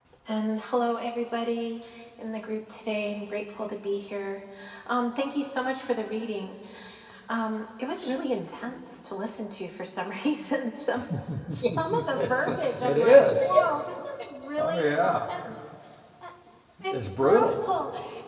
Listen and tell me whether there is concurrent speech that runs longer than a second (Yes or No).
Yes